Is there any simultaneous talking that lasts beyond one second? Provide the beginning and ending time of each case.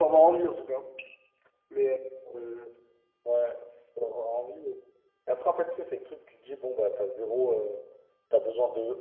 none

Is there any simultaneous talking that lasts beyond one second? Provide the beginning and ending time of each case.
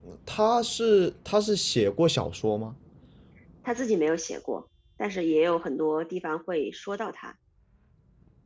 none

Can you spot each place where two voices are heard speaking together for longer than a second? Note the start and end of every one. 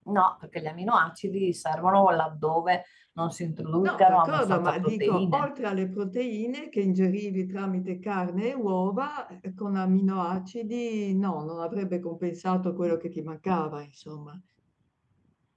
3.8-5.5

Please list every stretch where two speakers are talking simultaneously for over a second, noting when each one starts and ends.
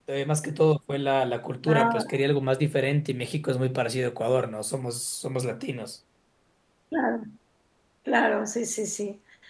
none

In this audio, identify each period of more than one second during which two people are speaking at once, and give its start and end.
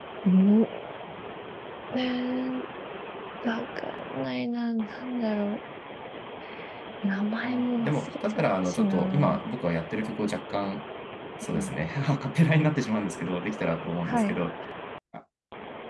7.4-9.4

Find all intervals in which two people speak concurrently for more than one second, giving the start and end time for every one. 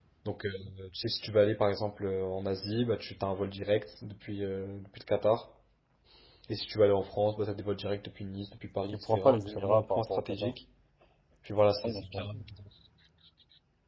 8.9-10.5

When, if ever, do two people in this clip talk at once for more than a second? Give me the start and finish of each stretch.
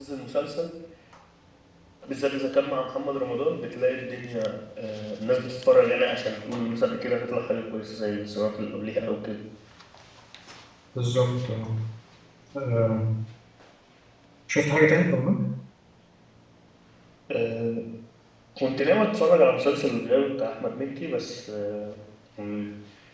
none

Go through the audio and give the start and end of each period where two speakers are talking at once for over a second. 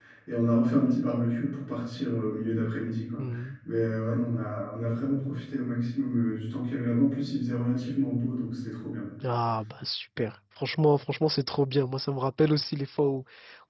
none

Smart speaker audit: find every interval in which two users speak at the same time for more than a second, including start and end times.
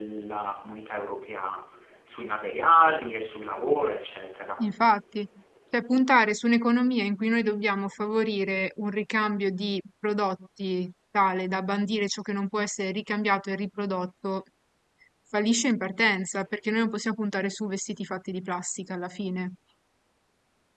none

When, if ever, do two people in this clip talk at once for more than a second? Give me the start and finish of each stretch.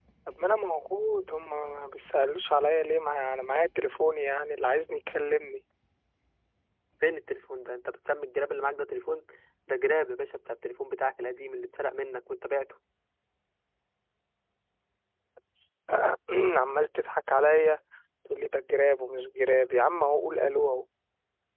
none

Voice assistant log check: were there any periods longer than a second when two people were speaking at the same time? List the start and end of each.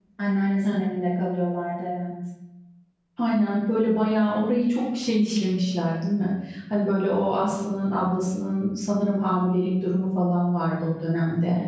none

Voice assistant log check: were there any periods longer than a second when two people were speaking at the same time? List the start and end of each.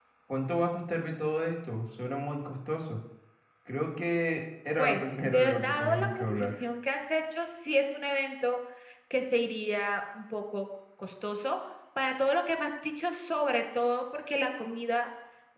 4.8-6.5

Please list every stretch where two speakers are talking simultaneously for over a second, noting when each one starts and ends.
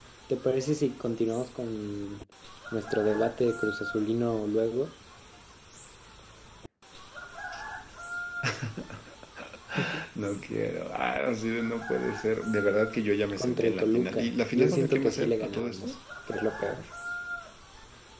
13.3-15.9

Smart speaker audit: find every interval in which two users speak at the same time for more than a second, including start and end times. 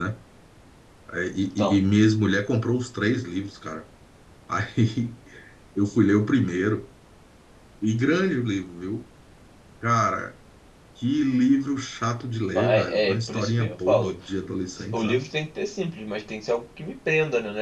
12.6-14.1

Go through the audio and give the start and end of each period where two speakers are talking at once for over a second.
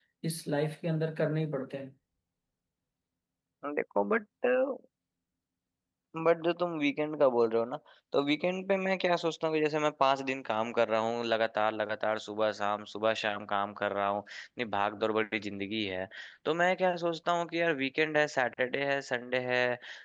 none

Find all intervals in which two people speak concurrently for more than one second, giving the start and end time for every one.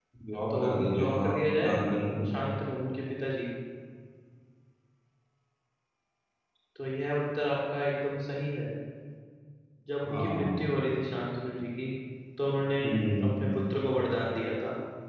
0.5-1.7

